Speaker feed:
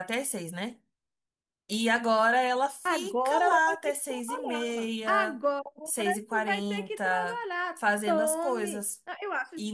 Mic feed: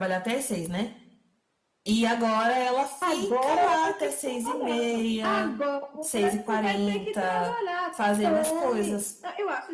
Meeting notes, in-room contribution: none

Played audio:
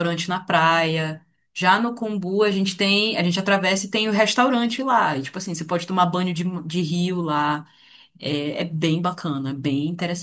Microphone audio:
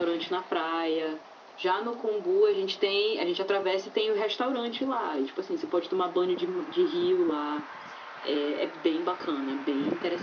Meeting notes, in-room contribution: none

